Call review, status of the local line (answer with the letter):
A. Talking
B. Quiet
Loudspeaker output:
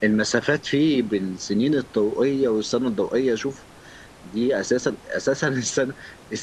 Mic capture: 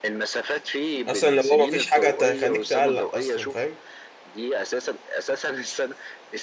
A